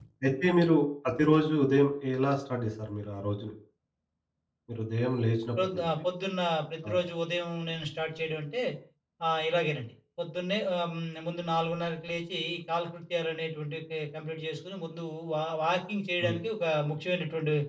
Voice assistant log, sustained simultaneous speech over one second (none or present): none